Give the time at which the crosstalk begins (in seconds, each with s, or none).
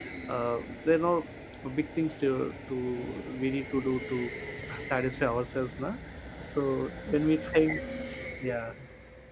none